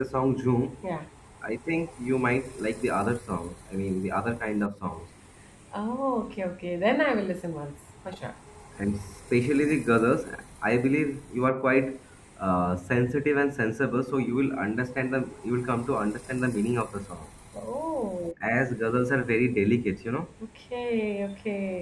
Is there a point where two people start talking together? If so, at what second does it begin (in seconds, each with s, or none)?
none